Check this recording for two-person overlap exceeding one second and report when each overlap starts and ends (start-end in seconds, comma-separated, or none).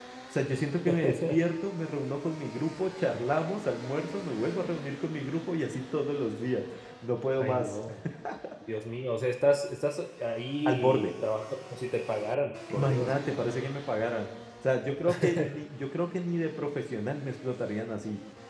none